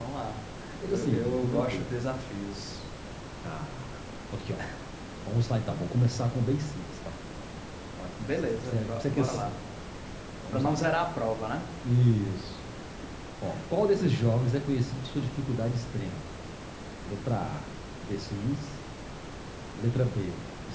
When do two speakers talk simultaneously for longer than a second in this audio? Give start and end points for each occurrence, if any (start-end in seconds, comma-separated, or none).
0.8-2.1, 8.2-9.6